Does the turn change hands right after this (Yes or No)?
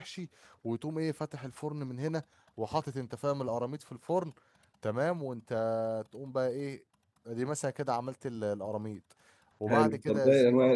Yes